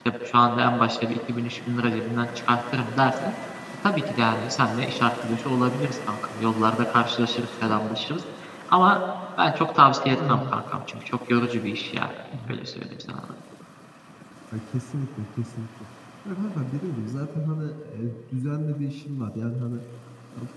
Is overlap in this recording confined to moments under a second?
Yes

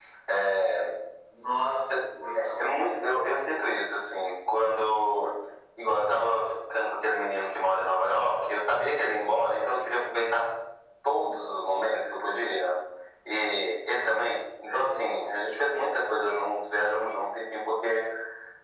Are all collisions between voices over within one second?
Yes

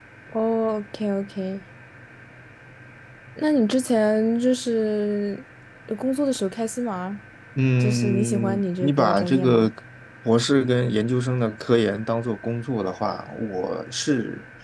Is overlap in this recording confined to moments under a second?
No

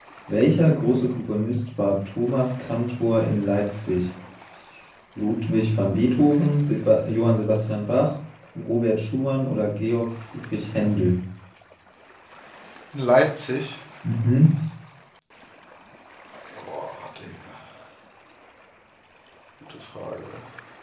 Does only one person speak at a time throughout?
Yes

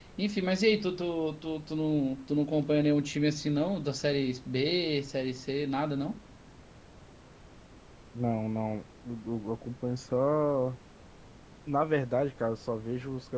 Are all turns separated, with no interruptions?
Yes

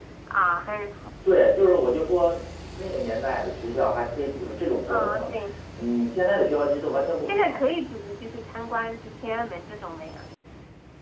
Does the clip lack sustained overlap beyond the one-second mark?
Yes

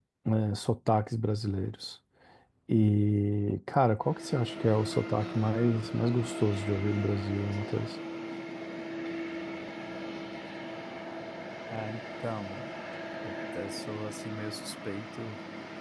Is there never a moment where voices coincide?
Yes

